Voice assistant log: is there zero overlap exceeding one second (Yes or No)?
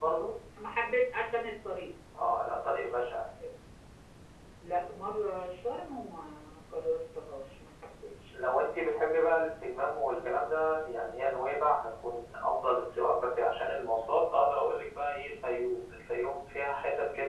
Yes